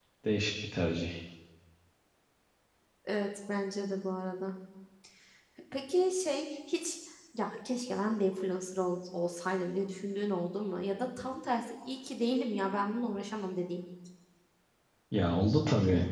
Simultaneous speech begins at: none

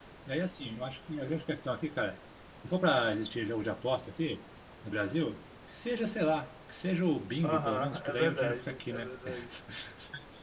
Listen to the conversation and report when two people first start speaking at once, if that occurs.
7.4 s

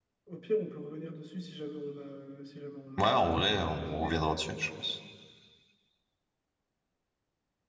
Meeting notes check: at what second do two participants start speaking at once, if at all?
3.0 s

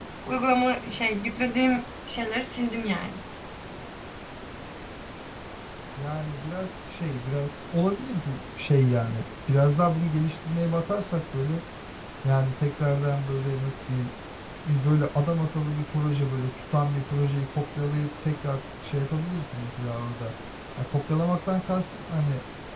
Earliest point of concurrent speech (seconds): none

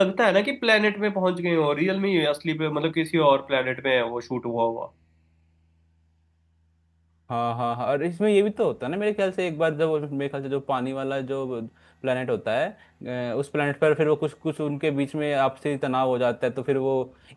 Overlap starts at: none

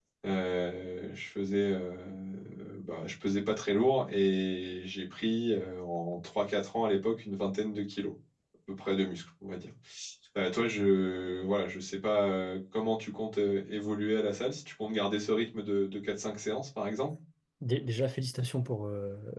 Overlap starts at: none

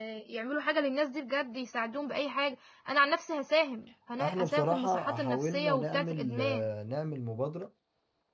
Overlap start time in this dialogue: 4.2 s

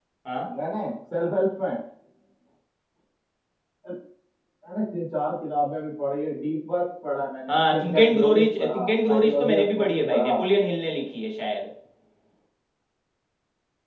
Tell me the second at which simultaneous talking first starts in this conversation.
7.5 s

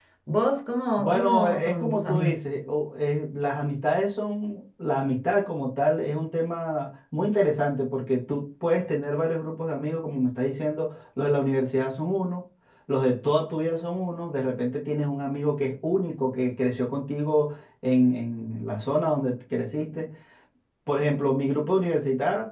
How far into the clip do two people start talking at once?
1.0 s

